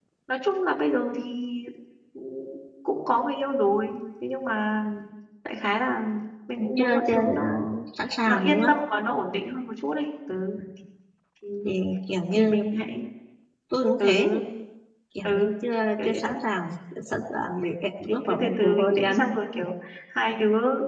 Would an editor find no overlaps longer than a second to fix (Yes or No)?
No